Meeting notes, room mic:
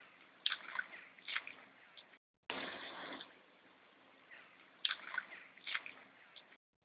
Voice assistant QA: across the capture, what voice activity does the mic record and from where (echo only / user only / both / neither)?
neither